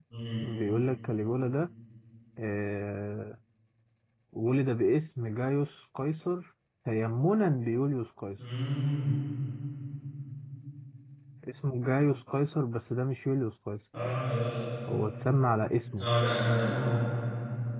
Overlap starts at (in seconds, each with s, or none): none